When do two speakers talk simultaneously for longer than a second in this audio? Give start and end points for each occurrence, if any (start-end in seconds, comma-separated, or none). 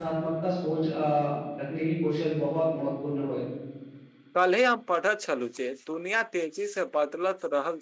none